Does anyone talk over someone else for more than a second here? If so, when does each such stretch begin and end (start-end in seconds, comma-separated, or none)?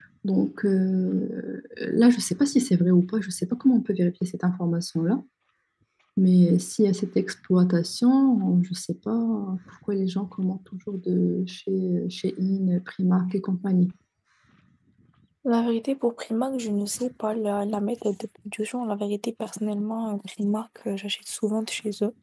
none